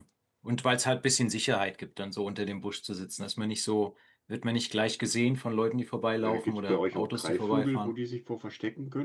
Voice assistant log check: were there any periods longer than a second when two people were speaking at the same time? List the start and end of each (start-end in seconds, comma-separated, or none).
6.2-7.9